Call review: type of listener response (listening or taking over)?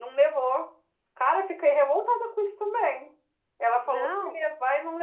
listening